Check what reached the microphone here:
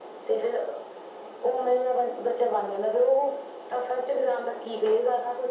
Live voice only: none

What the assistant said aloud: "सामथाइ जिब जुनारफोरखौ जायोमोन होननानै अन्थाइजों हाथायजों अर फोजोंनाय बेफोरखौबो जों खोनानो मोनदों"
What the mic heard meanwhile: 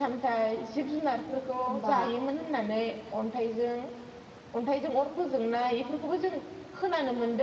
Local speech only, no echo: होमबा

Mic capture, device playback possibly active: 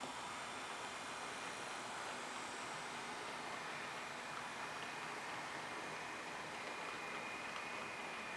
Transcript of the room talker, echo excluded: none

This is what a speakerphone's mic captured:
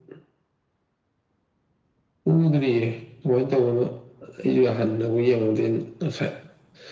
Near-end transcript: none

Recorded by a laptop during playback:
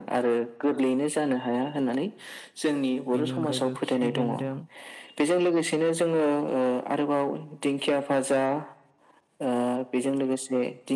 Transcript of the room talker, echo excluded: बेनि अनगायैबो खिफि बेन्दों

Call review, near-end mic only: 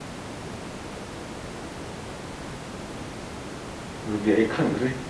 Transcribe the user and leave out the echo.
ꯑꯗꯨꯗꯤ ꯑꯩ ꯈꯪꯗ꯭ꯔꯤ꯫

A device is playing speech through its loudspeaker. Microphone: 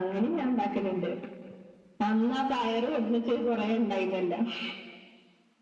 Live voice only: none

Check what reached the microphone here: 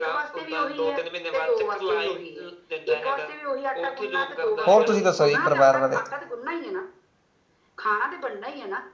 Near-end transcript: ਹੋਰ, ਤੁਸੀਂ ਦੱਸੋ ਜੀ ਪਰਿਵਾਰ ਬਾਰੇ?

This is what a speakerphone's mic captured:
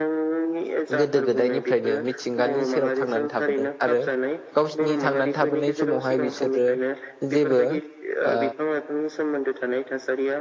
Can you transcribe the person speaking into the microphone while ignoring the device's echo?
गोदो गोदायनिफ्रायनो मिथिंगानि सेराव थांनानै थाबोदों आरो गावसिनि थांनानै थाबोनाय समावहाय बिसोरो जेबो ओ

